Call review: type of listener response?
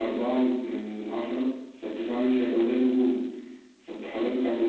listening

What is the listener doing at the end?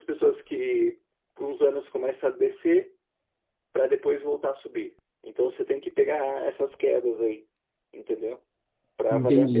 taking over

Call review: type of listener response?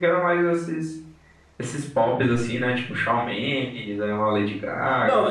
taking over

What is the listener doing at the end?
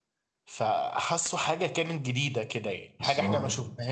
listening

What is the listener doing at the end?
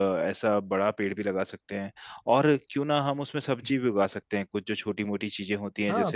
taking over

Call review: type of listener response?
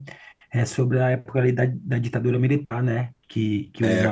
listening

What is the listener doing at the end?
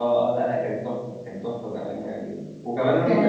listening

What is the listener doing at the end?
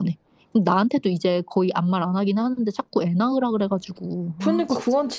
taking over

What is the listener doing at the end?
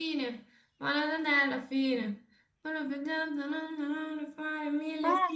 taking over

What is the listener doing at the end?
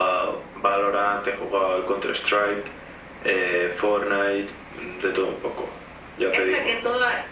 taking over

